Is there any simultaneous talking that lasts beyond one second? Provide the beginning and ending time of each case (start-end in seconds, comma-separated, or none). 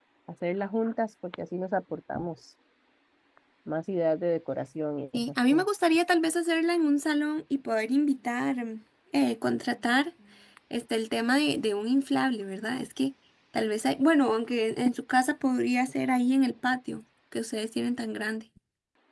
none